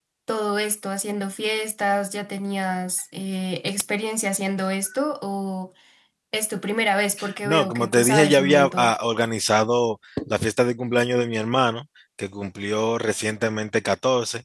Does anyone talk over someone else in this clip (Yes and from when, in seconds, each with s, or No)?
Yes, from 7.4 s